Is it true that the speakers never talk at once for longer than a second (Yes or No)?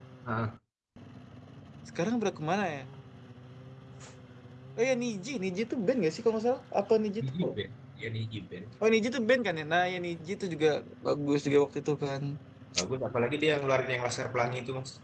Yes